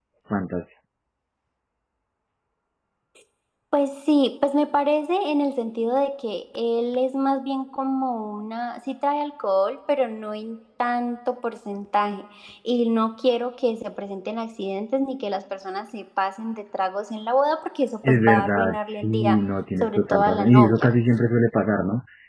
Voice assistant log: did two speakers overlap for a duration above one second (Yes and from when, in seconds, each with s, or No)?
Yes, from 18.0 s